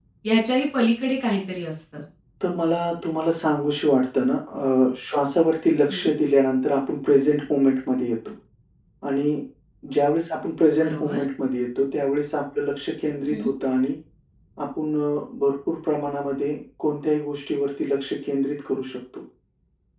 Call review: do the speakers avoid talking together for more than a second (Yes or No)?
Yes